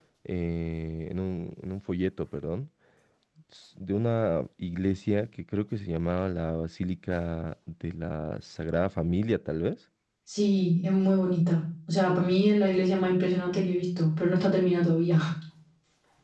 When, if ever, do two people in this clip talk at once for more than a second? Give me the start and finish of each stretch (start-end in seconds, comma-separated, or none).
none